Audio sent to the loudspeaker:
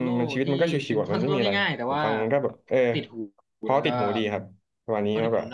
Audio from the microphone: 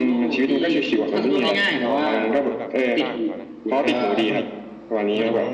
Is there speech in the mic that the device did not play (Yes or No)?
Yes